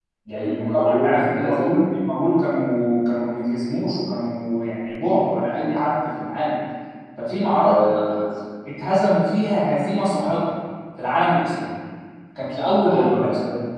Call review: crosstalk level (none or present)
present